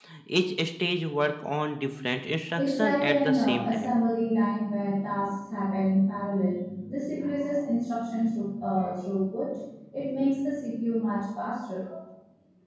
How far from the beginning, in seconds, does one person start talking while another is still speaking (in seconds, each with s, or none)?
2.5 s